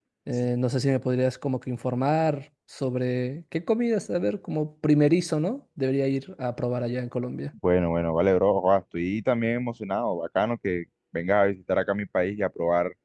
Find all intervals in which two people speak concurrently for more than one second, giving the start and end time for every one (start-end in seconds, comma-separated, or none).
none